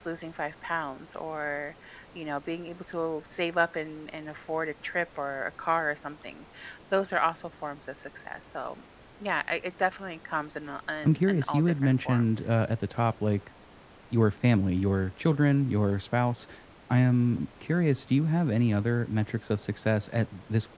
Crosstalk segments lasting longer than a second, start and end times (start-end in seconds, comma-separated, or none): 11.0-12.3